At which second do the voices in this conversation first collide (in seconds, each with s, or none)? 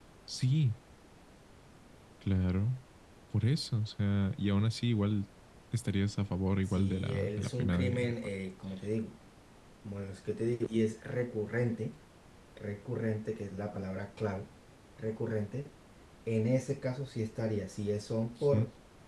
6.7 s